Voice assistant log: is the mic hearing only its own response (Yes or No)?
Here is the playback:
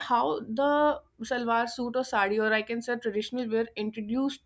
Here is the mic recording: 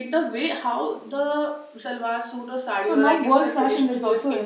No